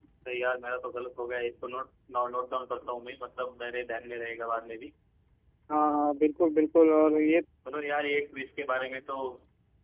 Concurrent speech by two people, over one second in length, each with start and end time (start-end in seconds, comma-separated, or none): none